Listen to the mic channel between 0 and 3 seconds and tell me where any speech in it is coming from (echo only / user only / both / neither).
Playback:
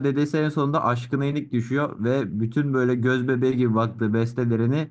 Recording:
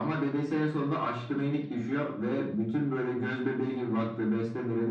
echo only